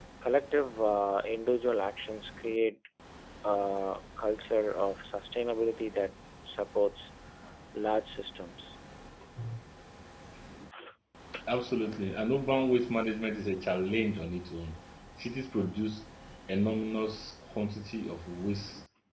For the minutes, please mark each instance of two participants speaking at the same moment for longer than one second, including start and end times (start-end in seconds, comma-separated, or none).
none